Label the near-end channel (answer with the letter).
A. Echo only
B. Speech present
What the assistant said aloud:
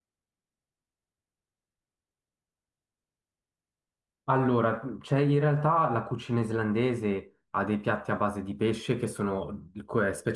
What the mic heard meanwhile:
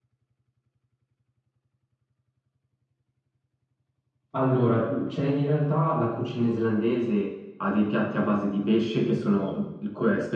A